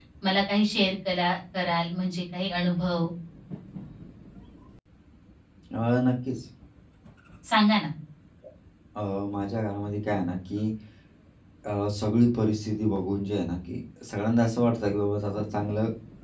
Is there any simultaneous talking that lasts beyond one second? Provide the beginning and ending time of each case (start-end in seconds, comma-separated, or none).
none